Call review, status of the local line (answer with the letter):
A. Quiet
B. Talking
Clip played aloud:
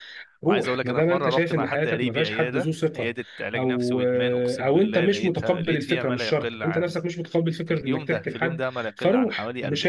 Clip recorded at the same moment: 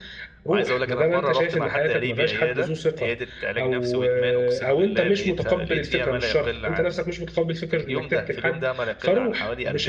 A